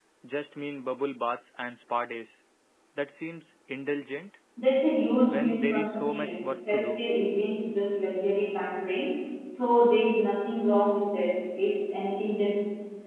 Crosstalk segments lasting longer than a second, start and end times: 5.3-7.0

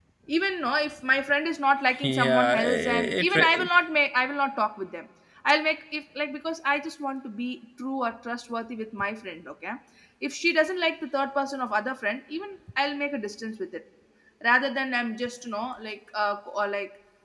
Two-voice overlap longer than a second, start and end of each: 2.0-3.7

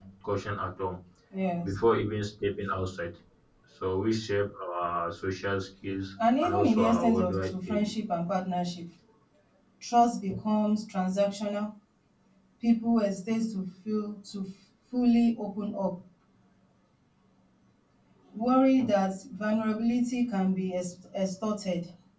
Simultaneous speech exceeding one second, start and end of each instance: 6.4-7.9

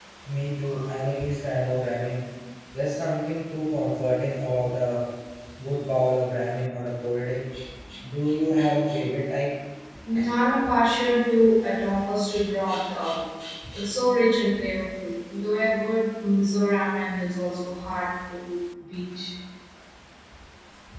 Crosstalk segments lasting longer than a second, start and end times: none

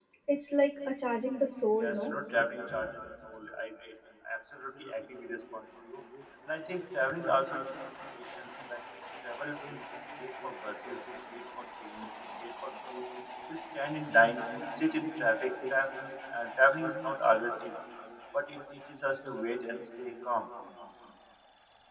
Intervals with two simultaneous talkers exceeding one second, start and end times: none

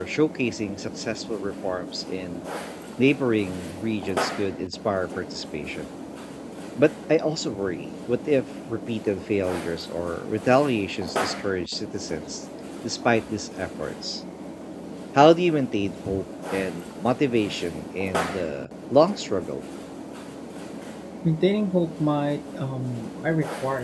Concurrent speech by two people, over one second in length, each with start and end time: none

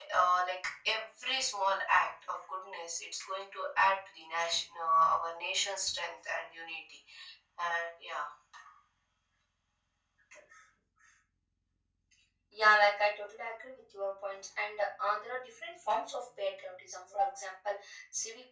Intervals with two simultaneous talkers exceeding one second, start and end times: none

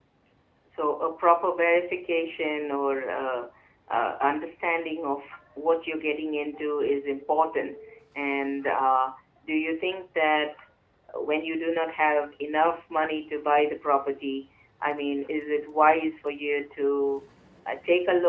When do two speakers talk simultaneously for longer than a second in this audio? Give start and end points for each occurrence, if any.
none

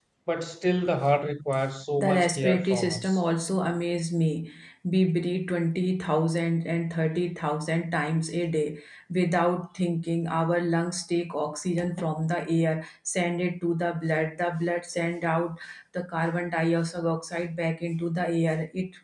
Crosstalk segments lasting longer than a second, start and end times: 2.0-3.2

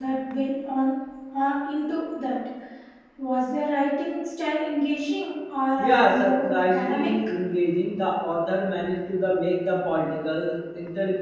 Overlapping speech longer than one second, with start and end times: 5.8-7.1

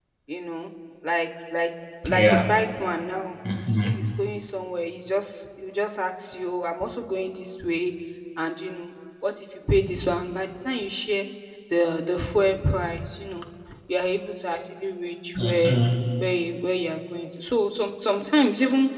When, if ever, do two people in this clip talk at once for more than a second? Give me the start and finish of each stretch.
none

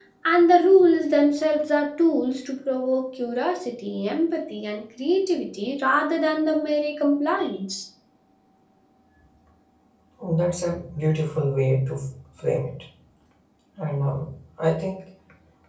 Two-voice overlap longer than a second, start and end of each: none

